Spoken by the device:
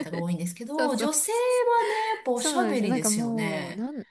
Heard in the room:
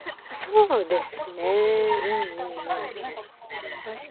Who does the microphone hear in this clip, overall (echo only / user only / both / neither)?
both